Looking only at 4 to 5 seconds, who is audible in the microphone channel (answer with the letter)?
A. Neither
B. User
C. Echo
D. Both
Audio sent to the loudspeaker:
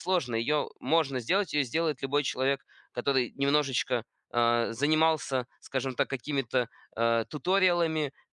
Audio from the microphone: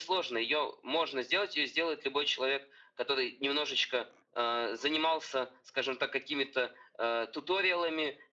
C